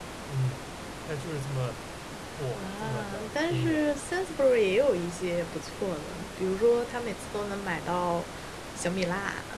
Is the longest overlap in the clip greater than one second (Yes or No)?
Yes